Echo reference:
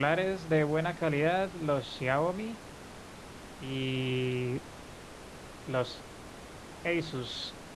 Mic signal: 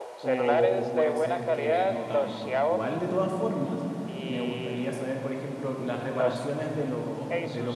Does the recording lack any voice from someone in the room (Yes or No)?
No